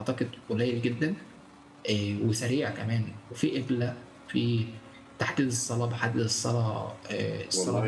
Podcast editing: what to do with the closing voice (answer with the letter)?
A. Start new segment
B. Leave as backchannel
A